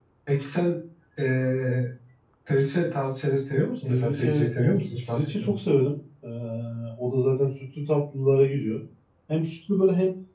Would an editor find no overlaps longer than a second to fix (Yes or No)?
No